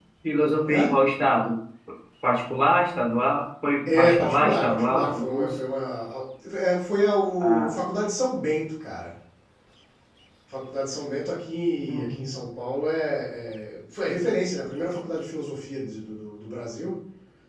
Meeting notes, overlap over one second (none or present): present